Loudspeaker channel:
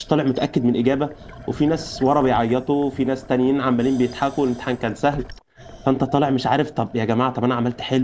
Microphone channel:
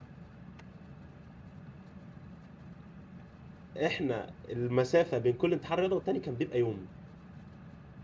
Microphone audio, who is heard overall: user only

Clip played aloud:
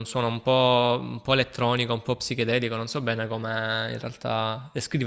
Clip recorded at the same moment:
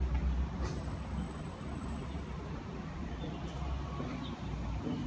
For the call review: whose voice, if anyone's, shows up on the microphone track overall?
neither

